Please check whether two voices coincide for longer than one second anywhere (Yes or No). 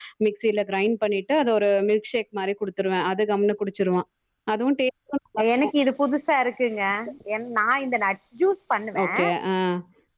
No